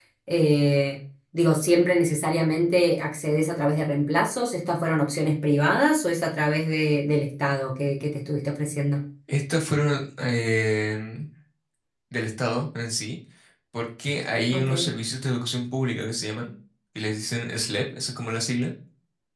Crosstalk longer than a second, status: none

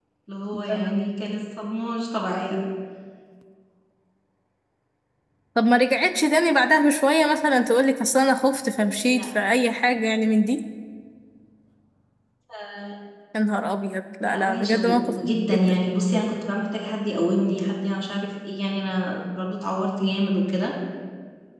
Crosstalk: present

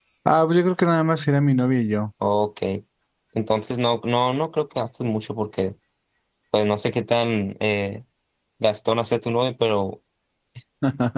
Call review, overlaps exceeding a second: none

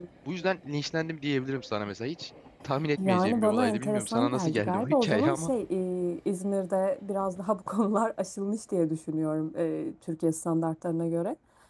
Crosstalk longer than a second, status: present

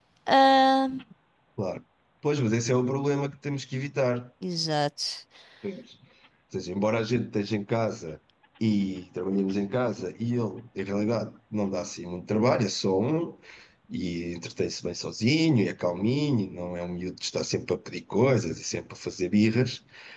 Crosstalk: none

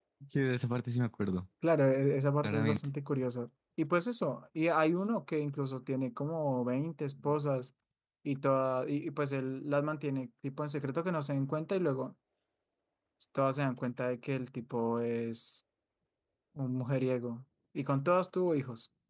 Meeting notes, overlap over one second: none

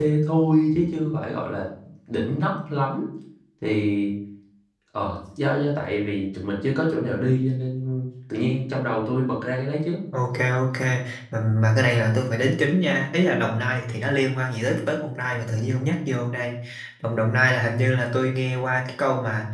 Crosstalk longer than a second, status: none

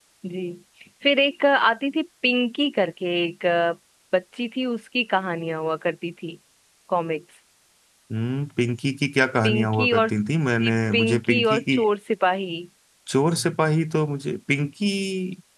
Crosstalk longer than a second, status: present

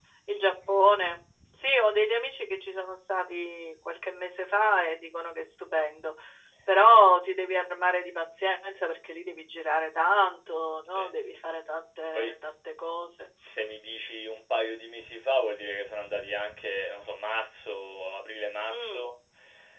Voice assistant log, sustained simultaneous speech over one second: none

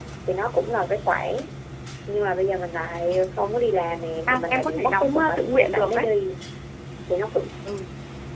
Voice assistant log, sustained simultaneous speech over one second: present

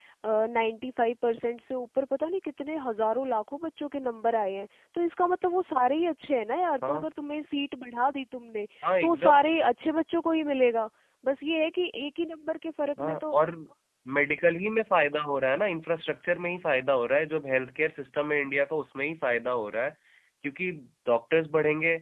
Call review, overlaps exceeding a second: none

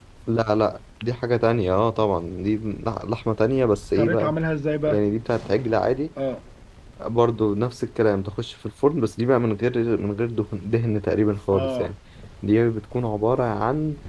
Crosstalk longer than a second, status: none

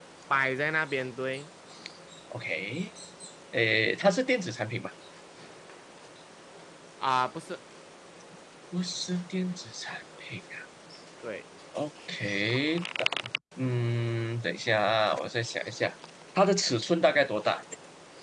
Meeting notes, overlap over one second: none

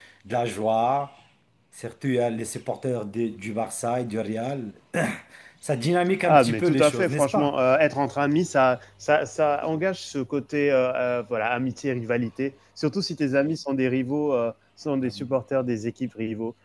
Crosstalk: present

